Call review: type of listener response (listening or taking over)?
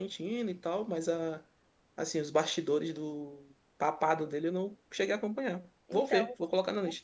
taking over